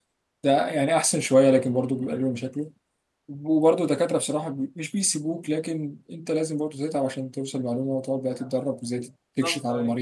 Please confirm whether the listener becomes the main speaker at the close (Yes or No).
No